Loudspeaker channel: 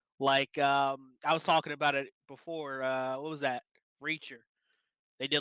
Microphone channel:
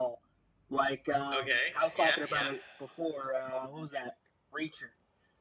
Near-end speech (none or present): present